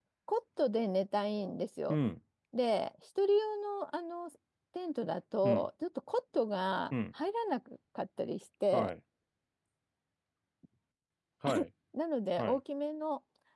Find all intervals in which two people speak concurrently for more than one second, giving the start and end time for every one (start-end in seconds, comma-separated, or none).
none